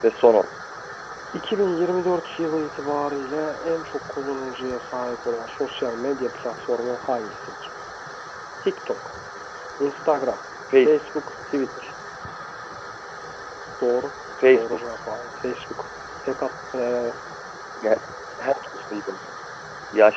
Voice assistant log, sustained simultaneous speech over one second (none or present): none